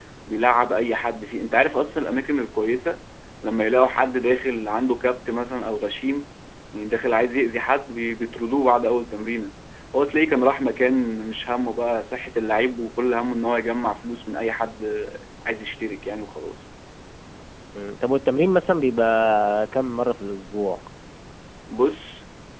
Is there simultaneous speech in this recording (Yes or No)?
No